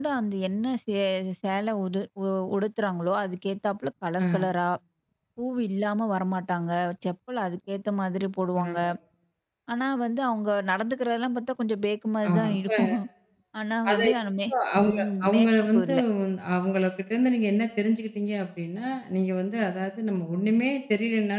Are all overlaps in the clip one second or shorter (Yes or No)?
No